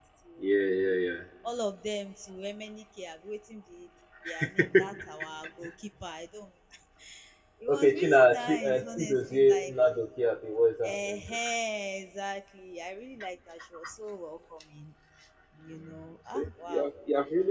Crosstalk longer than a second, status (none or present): present